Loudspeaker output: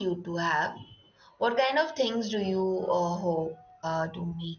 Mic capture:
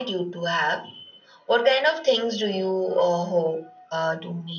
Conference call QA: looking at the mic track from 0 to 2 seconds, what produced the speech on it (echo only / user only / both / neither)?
echo only